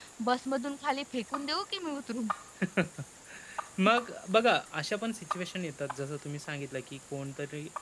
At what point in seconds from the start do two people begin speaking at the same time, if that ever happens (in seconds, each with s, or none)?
none